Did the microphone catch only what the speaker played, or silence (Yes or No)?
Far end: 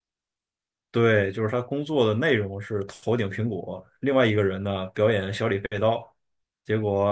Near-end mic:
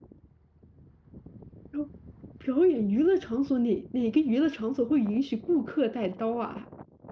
No